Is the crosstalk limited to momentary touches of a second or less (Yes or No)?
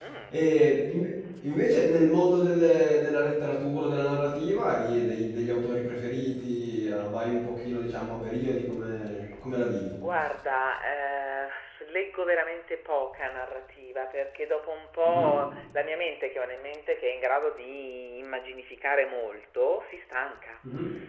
Yes